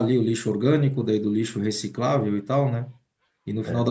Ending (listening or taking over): listening